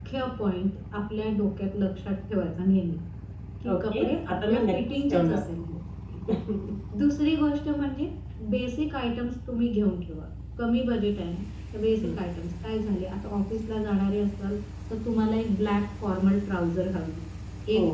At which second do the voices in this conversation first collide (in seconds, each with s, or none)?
3.9 s